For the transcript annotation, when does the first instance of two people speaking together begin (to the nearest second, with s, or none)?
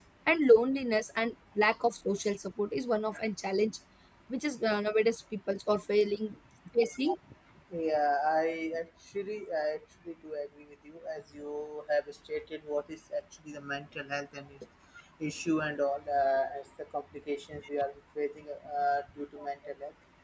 none